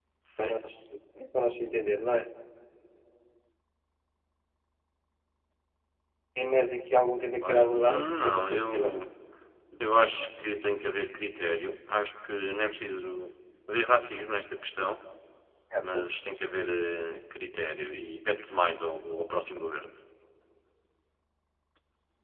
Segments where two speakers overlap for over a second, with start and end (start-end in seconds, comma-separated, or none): 7.4-9.0